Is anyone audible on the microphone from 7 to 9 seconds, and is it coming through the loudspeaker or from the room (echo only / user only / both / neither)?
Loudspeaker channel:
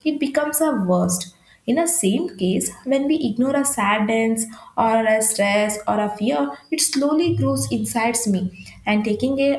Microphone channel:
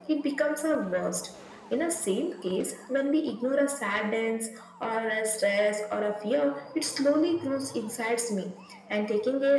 echo only